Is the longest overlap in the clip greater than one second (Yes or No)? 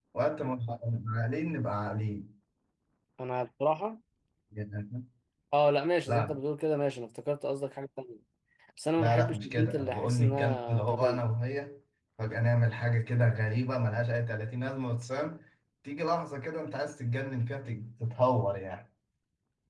Yes